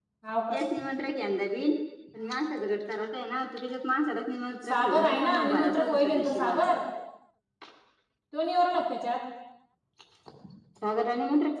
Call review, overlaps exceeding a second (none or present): present